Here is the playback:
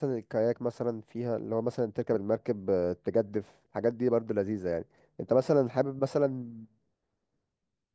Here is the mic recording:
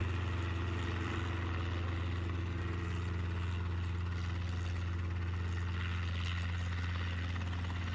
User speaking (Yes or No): No